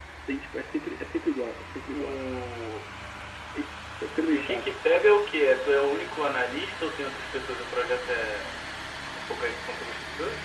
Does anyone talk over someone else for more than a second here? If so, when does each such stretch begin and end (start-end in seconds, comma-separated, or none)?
none